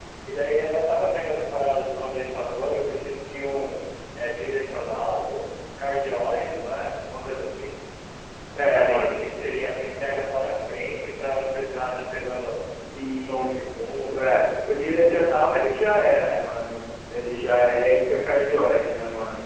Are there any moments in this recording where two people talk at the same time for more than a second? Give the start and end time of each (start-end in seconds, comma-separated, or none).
13.2-14.4